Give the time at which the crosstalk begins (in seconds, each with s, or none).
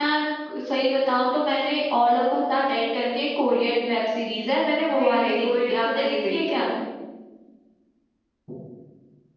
4.9 s